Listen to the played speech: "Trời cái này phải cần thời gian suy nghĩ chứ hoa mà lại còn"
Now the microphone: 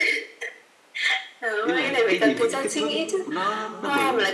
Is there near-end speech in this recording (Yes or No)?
Yes